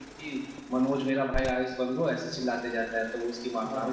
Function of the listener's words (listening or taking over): listening